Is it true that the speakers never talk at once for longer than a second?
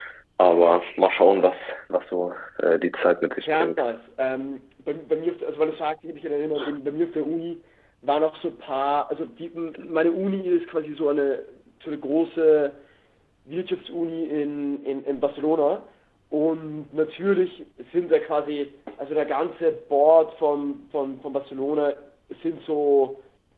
Yes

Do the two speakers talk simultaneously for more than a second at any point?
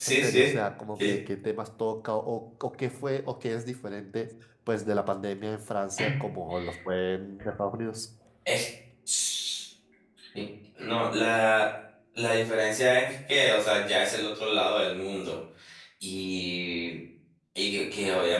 No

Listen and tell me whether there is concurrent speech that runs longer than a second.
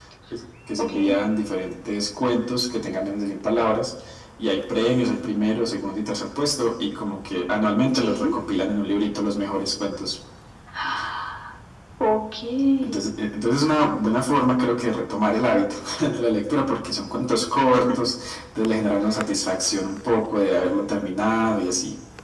No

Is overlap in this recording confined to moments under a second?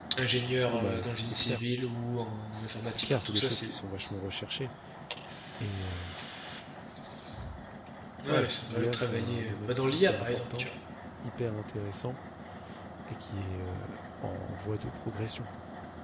No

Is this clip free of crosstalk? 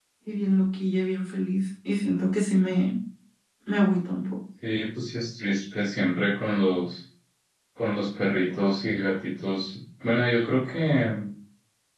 Yes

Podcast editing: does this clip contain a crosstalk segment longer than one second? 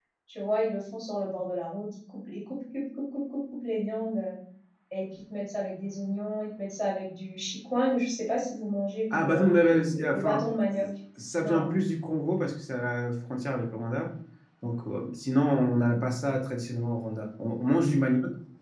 Yes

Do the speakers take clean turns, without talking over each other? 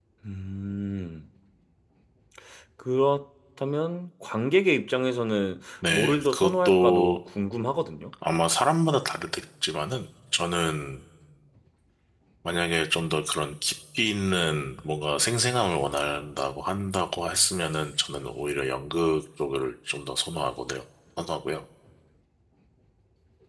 No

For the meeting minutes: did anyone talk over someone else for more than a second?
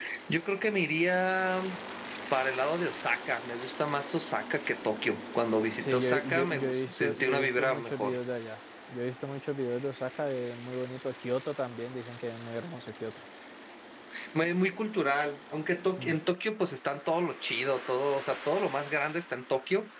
Yes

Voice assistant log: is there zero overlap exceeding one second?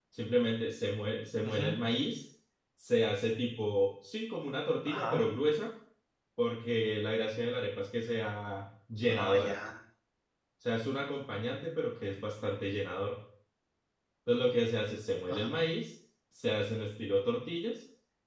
Yes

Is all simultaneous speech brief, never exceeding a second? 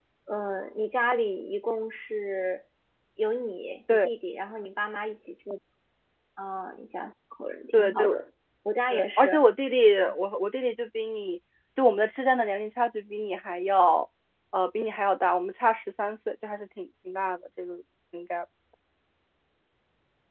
Yes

